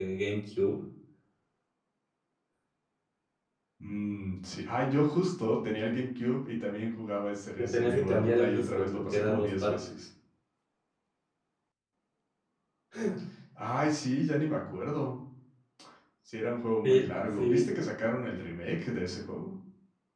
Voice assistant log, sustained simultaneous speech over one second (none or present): present